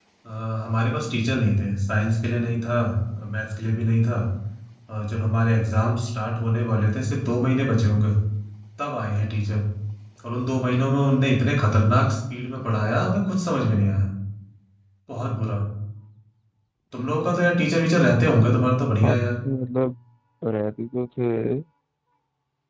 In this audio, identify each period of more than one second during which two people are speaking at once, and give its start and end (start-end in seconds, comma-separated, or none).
none